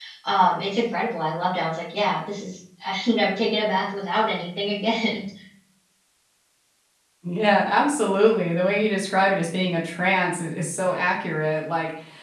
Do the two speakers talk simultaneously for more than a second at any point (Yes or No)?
No